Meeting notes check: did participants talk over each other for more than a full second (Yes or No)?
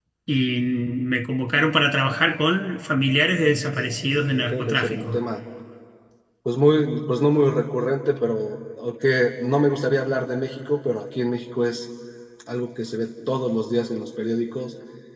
Yes